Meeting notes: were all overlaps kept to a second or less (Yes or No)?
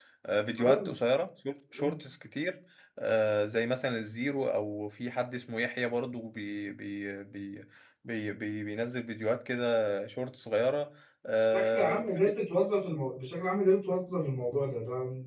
Yes